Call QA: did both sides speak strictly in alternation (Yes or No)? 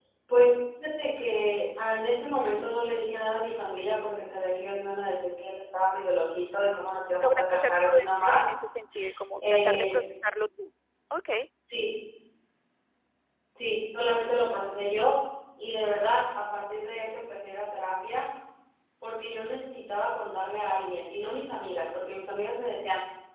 No